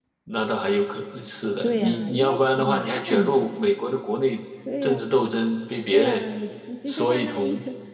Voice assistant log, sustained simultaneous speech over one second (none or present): present